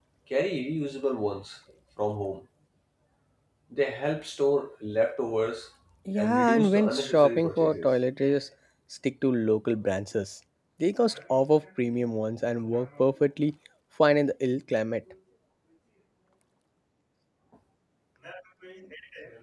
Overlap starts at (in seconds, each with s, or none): 6.2 s